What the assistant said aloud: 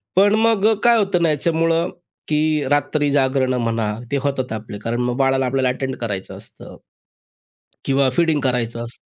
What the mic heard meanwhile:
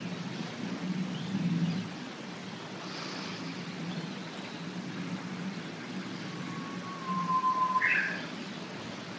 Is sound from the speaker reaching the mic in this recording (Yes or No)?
No